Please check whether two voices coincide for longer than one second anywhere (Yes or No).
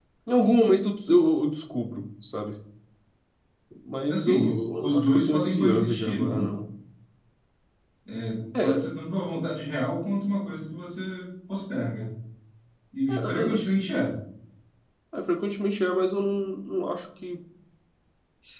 Yes